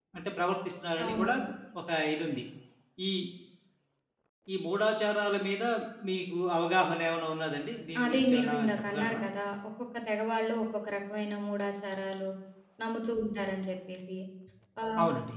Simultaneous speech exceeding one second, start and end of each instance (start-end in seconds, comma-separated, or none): 8.0-9.2